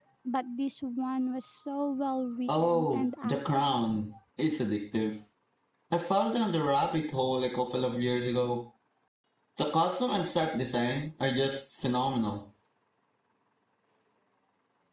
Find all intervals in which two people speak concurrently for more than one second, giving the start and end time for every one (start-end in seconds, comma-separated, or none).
2.5-3.7